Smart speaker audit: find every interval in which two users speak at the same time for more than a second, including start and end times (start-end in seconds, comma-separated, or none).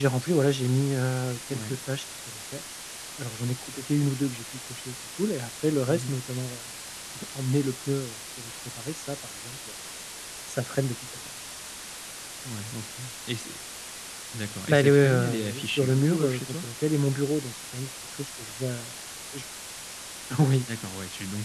14.7-16.6